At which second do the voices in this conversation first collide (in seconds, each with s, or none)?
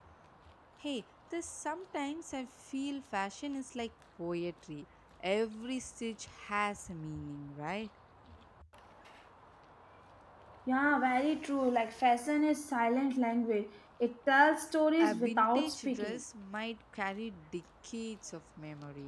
15.0 s